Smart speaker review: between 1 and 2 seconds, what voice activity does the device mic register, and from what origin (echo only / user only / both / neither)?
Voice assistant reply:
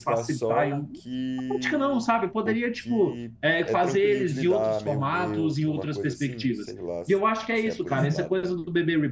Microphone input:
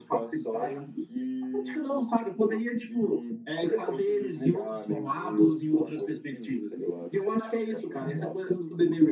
echo only